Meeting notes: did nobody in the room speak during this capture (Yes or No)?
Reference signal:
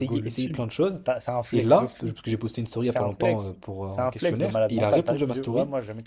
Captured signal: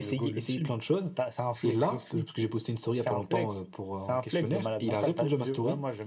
Yes